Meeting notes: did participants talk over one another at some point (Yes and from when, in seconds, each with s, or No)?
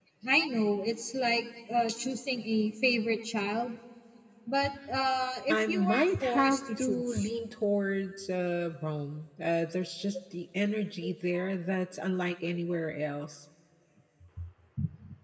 Yes, from 5.5 s